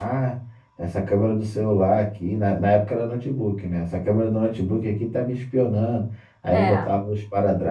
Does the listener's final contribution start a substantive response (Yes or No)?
No